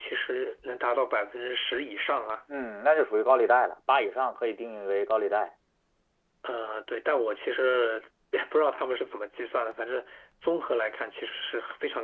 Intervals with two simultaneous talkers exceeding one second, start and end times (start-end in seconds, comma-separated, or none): none